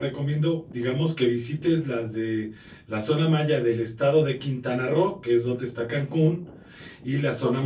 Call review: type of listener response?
listening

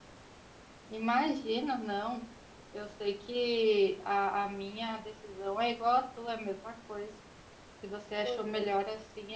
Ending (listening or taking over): listening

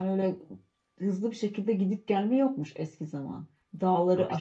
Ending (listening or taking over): listening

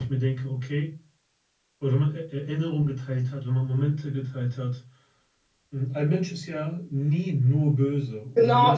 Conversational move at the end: taking over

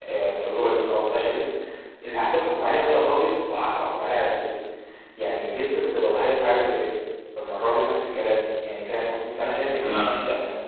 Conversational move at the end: listening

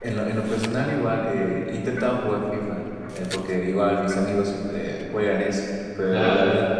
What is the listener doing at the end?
listening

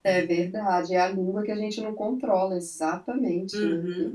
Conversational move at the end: taking over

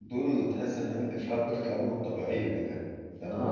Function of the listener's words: taking over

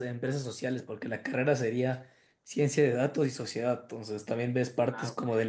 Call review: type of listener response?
listening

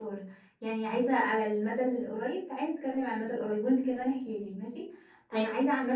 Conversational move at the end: listening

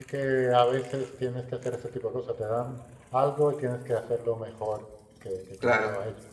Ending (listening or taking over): taking over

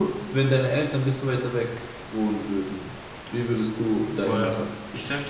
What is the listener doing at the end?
taking over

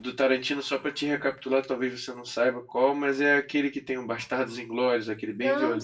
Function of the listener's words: taking over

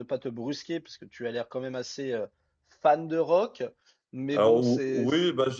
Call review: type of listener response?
taking over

